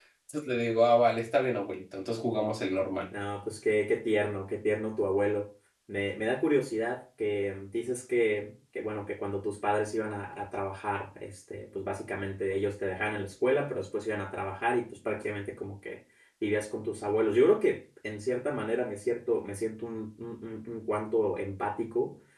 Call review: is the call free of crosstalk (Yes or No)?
Yes